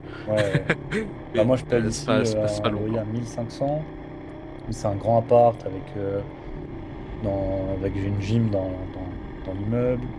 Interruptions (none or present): present